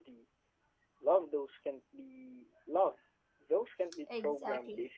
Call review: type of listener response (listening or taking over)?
taking over